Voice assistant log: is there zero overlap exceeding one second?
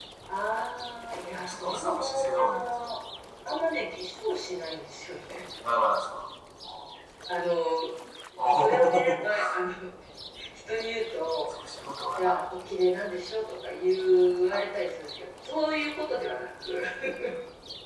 No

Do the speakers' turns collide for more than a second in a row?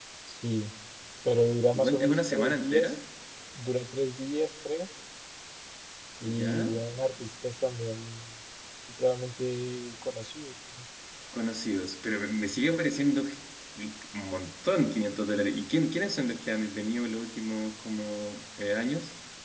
Yes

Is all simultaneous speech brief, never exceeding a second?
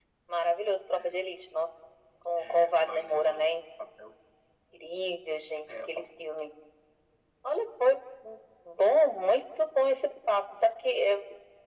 No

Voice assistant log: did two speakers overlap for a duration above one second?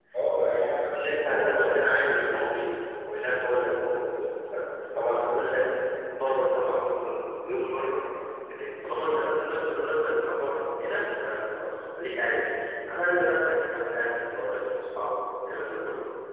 Yes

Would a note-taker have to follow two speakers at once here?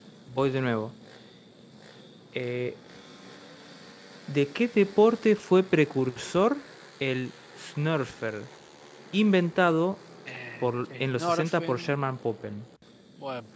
Yes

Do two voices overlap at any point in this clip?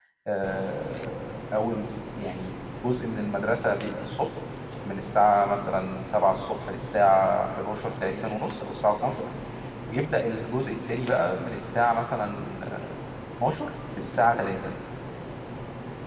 No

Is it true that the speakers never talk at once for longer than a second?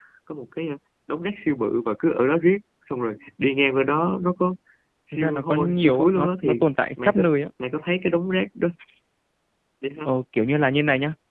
No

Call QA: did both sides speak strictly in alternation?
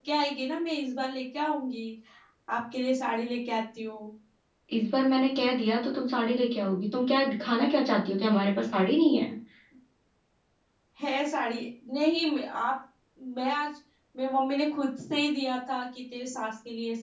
Yes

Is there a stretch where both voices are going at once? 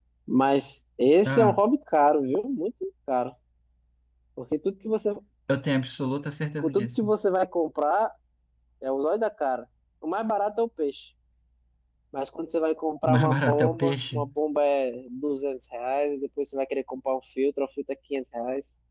Yes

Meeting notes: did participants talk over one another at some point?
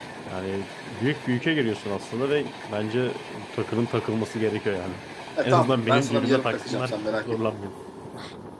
Yes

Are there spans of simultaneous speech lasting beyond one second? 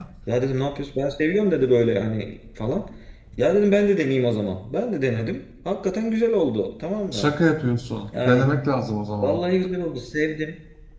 No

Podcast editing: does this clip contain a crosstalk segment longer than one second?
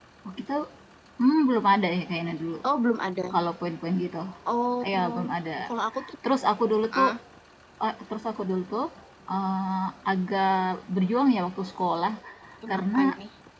No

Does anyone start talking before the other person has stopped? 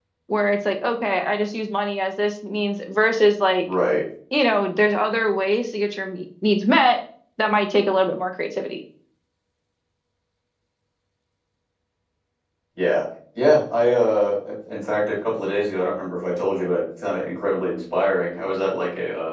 No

